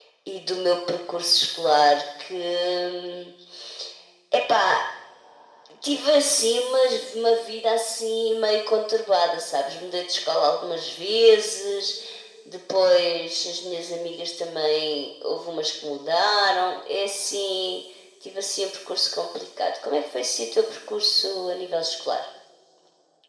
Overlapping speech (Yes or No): No